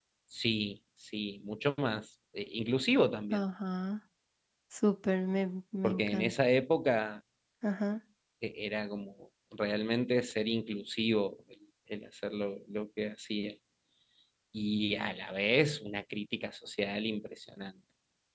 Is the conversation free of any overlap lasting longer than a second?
Yes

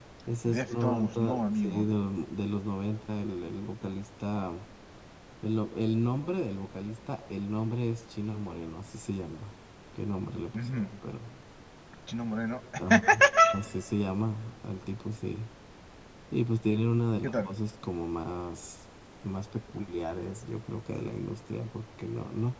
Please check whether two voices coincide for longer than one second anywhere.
Yes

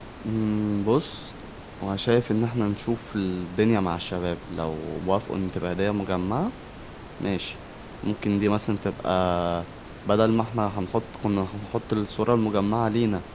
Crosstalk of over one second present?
No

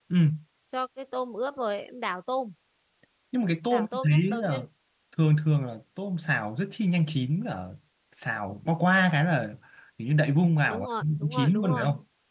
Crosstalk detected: Yes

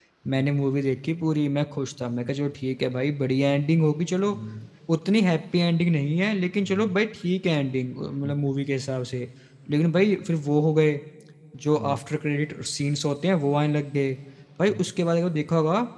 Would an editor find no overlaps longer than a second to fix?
Yes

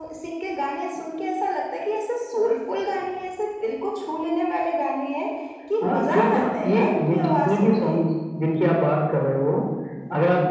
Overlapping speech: Yes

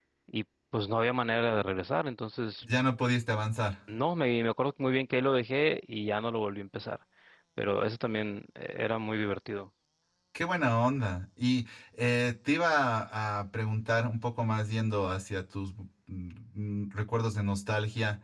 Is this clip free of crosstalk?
Yes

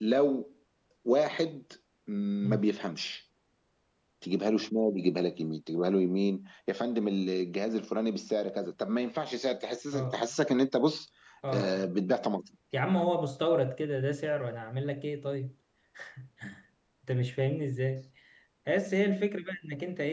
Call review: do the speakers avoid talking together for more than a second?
Yes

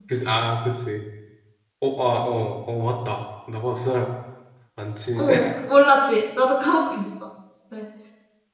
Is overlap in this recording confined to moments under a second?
Yes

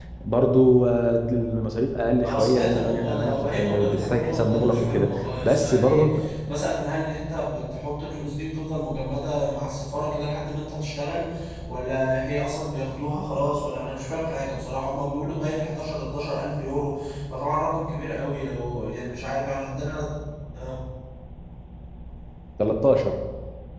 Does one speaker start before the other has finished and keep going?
Yes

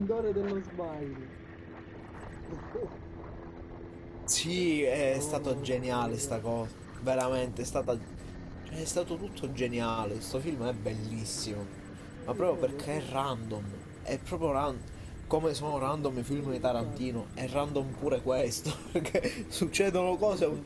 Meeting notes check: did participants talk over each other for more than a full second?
Yes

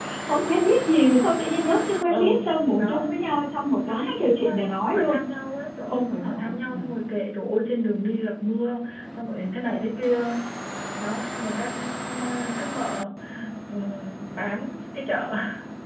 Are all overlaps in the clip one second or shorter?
No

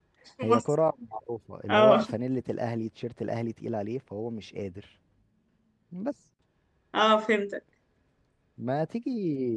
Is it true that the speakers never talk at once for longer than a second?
Yes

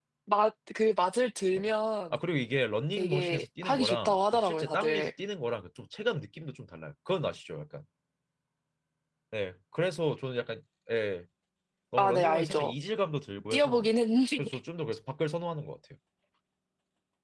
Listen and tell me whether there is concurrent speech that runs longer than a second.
Yes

